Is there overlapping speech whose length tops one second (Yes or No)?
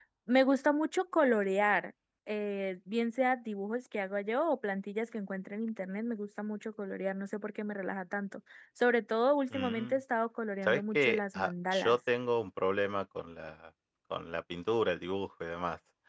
Yes